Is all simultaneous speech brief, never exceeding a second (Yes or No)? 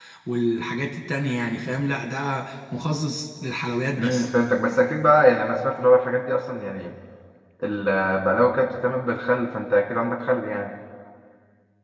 Yes